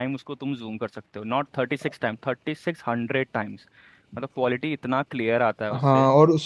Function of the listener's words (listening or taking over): taking over